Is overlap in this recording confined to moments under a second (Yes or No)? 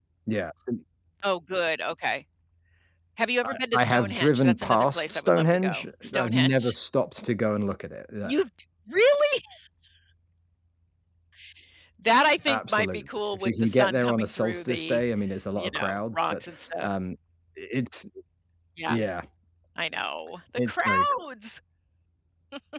No